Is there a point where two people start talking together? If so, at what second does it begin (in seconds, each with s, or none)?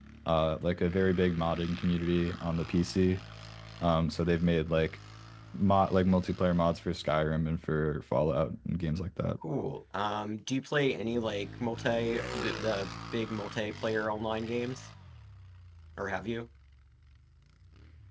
none